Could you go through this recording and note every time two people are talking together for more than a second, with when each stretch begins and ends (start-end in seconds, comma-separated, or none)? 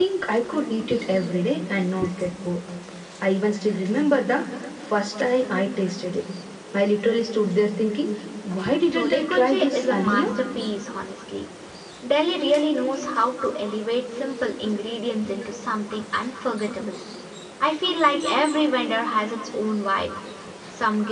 8.9-10.3